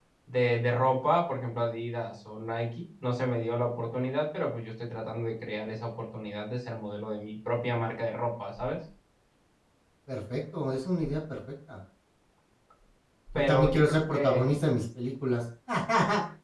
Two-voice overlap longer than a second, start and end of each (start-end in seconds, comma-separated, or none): 13.3-14.6